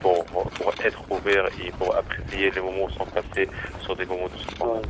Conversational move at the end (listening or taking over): taking over